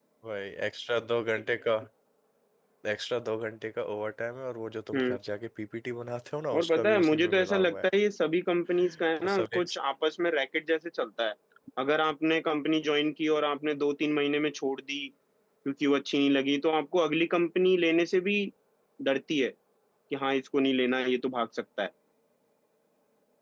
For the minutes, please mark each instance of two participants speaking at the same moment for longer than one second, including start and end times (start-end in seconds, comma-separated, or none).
6.6-7.8